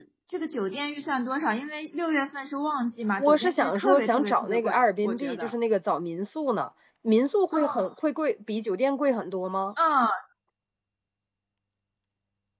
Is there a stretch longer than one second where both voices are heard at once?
Yes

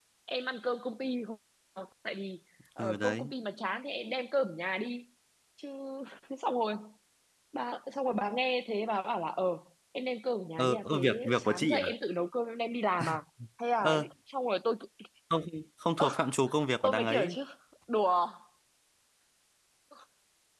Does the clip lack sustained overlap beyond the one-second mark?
No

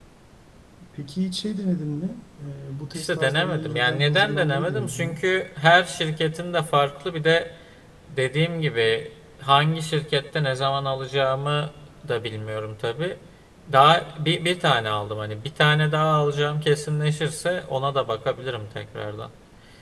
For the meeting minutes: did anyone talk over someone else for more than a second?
Yes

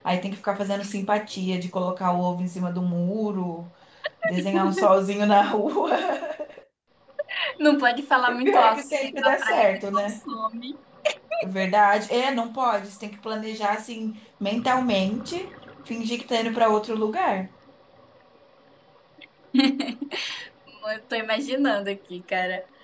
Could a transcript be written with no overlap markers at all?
No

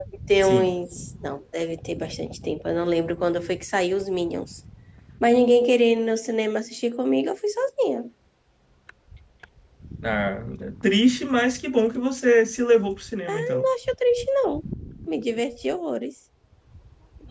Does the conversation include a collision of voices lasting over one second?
No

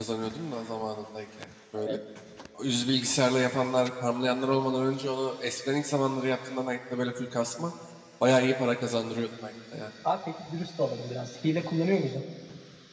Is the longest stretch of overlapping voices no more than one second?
Yes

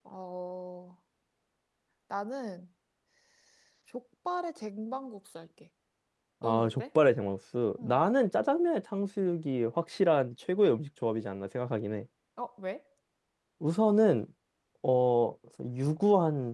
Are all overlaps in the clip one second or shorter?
Yes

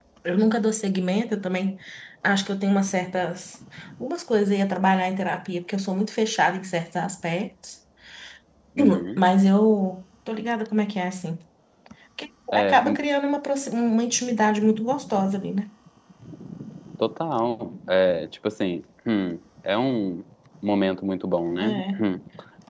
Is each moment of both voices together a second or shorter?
Yes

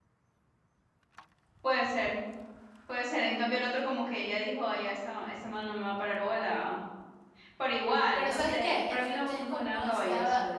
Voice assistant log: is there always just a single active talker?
No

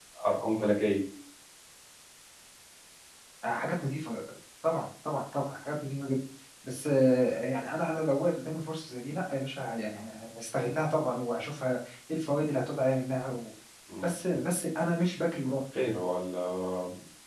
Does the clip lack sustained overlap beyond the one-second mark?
Yes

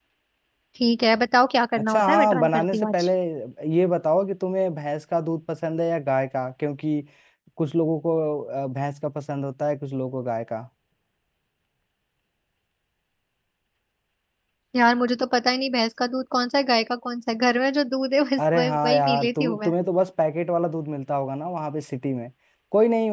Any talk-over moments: Yes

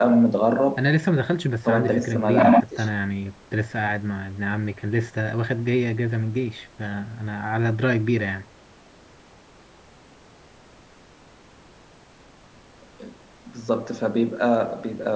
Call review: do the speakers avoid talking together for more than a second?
No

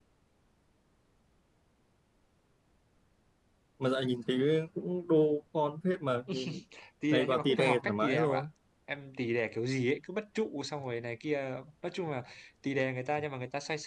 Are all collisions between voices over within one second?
No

